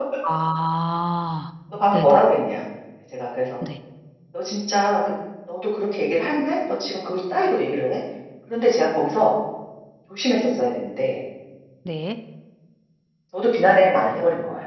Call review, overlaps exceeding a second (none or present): none